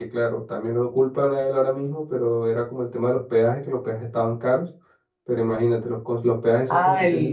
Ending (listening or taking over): taking over